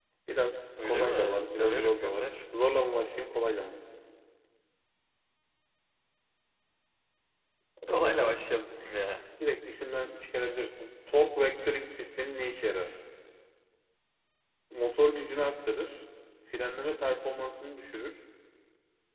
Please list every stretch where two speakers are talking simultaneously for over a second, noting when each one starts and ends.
0.8-2.3

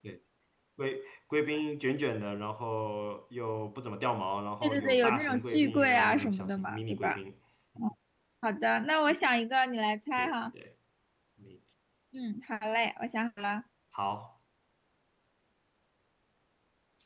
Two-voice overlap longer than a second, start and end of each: 4.6-7.2

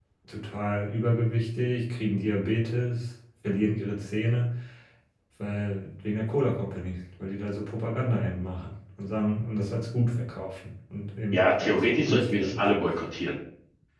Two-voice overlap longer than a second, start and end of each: 11.3-12.6

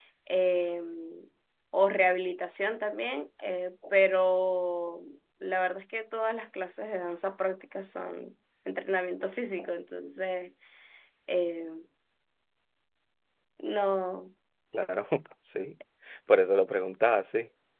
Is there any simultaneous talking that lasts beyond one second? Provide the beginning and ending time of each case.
none

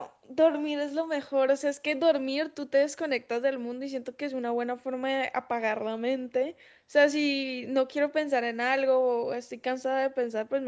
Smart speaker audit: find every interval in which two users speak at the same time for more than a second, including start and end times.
none

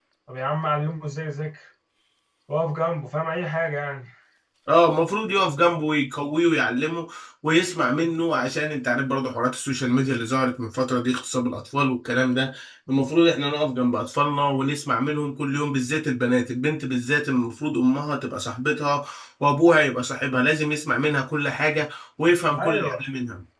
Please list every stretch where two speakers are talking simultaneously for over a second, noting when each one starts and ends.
none

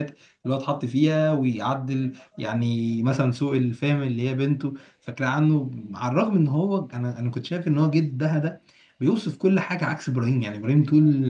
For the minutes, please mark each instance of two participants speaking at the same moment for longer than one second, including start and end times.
none

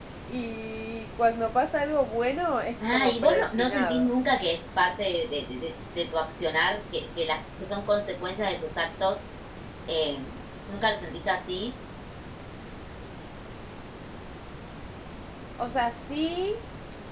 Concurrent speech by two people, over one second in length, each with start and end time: 2.9-4.1

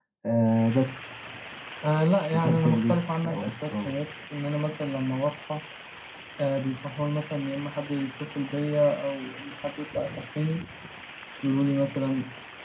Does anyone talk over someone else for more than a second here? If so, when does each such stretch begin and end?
2.3-3.9

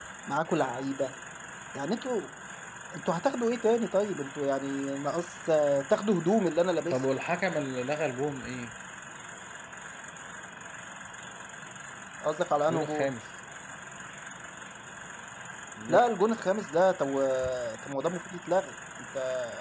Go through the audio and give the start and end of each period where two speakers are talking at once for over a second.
none

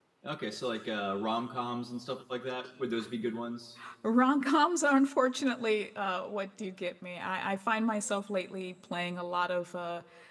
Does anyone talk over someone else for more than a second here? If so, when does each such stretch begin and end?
none

